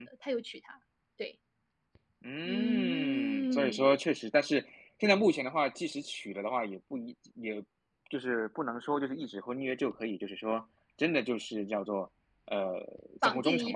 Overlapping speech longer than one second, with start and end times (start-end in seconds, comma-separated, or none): 2.4-3.9